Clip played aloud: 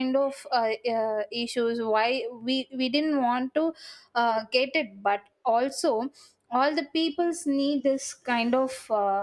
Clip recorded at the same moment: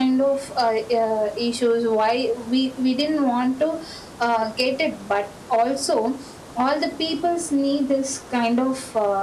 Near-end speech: none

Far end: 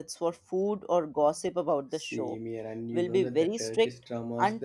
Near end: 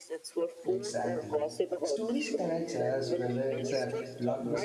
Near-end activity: present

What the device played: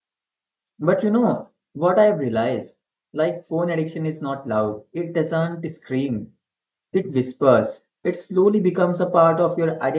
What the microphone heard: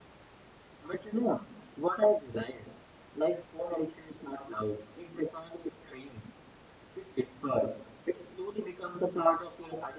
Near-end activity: none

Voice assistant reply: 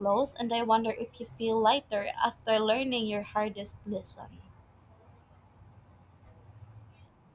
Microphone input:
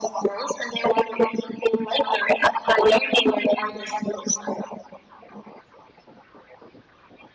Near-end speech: none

